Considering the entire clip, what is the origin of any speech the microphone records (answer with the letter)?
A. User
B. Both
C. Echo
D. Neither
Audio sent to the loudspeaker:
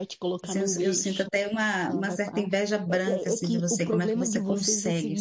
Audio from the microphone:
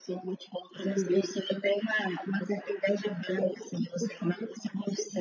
C